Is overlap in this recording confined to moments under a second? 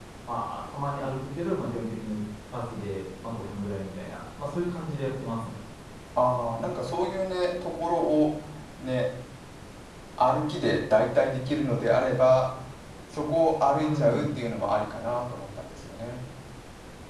Yes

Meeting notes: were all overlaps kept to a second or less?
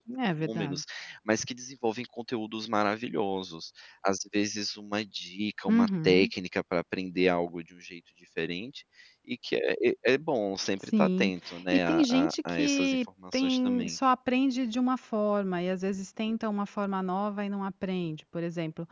No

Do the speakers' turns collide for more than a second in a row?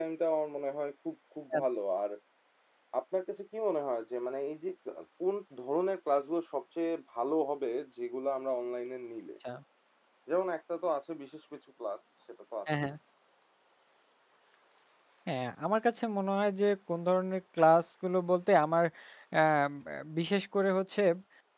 No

